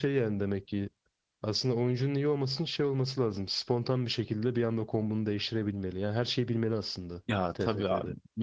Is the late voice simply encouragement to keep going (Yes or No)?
No